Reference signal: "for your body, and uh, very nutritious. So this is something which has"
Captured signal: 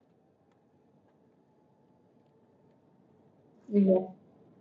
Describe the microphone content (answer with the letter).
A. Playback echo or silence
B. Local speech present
B